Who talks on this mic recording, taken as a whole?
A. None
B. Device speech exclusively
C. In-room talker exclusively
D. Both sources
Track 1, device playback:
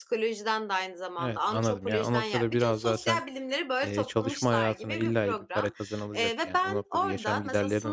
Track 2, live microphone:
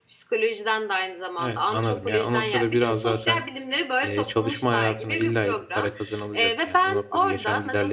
B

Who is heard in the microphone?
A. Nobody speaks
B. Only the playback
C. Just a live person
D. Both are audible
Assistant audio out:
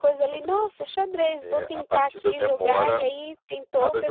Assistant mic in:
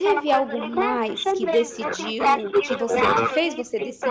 D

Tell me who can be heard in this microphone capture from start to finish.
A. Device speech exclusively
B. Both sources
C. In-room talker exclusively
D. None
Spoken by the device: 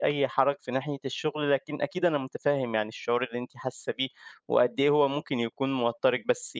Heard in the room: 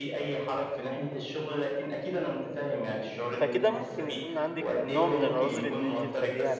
B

